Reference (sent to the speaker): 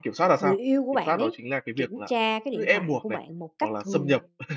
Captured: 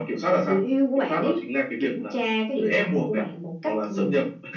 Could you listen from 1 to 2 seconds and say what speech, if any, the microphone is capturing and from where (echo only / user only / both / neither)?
echo only